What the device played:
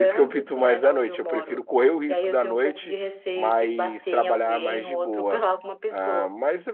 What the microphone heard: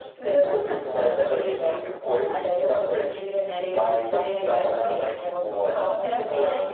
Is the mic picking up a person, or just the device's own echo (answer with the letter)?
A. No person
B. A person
B